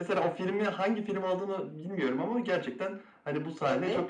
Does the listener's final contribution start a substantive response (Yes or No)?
No